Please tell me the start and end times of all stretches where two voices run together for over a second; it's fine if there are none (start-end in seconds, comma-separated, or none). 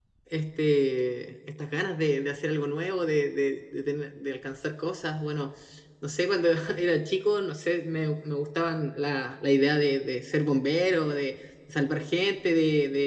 none